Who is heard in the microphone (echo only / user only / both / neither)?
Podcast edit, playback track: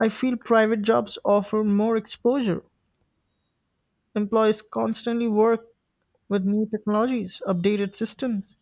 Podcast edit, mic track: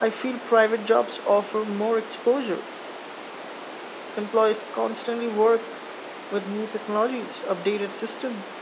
echo only